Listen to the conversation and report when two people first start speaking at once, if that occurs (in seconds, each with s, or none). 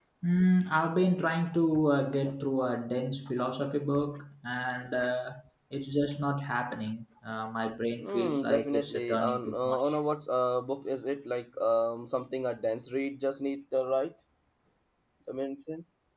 8.0 s